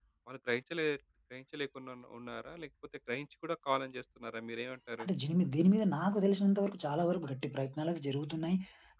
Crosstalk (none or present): none